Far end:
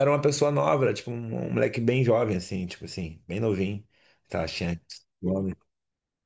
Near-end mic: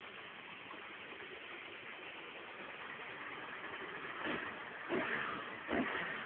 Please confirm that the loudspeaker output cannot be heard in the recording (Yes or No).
Yes